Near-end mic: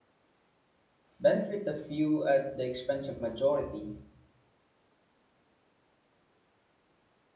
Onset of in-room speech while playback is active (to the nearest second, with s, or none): 1 s